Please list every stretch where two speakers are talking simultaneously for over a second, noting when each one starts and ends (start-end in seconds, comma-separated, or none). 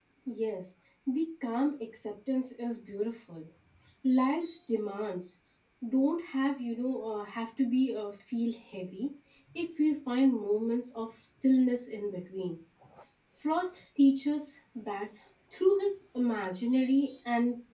none